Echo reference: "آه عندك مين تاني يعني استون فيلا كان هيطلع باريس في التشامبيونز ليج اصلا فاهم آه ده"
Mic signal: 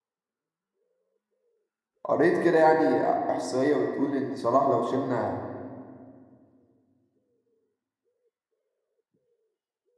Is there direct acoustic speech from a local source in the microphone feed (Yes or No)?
Yes